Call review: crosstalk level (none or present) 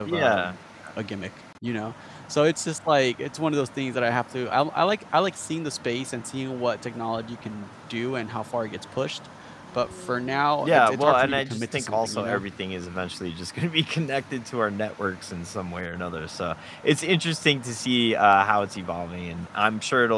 present